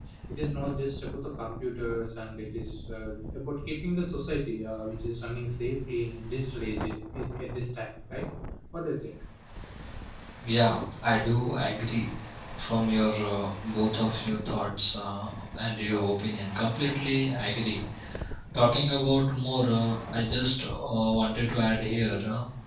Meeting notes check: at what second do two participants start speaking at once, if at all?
none

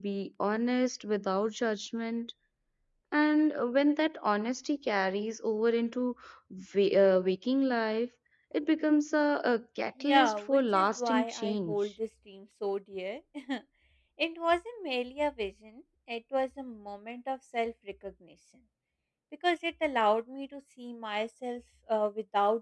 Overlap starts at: 10 s

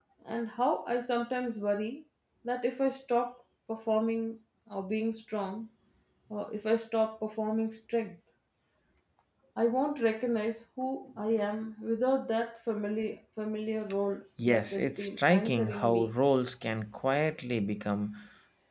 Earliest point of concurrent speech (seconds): 14 s

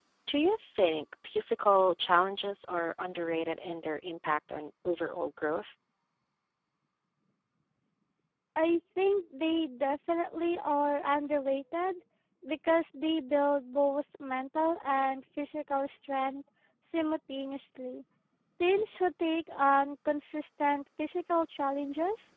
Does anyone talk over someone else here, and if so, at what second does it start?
none

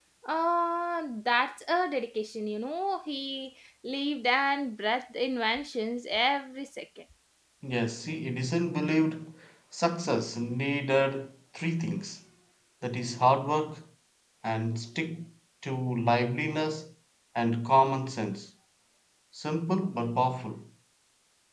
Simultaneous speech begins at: none

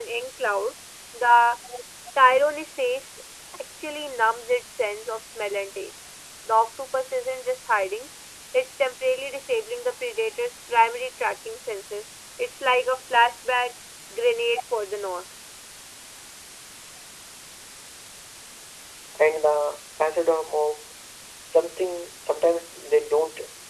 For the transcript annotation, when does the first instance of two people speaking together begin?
none

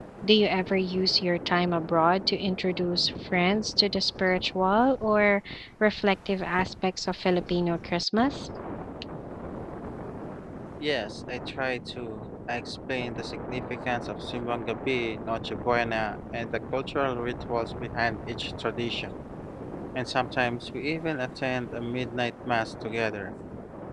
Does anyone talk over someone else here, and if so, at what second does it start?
none

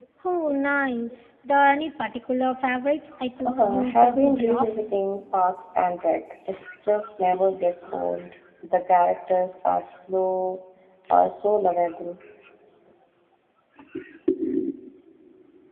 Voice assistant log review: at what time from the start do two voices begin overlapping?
3 s

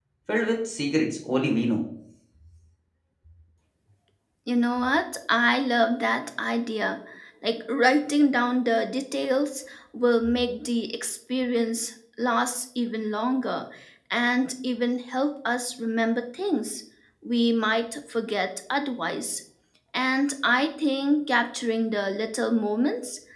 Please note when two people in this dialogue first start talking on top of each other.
none

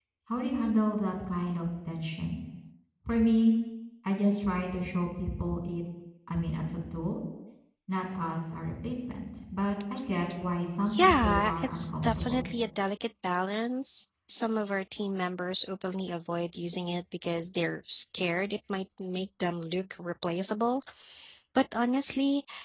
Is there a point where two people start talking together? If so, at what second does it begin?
11 s

